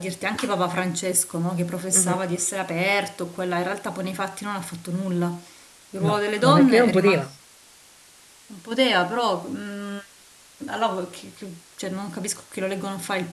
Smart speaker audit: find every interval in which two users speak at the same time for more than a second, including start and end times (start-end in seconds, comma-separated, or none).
6.0-7.3